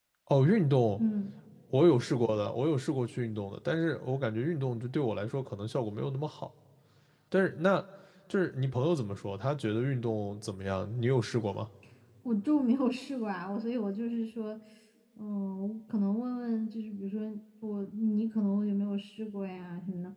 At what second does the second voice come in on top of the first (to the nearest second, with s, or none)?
none